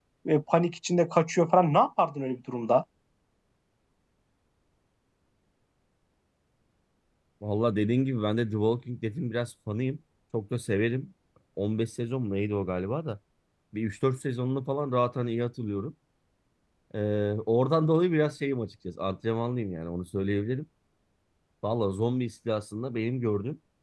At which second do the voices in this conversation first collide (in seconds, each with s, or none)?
none